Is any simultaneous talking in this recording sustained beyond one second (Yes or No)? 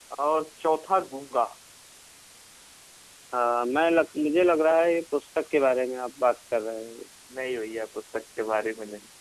No